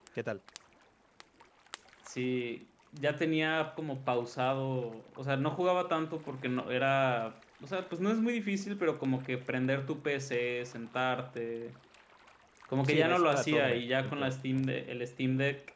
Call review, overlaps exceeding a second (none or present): present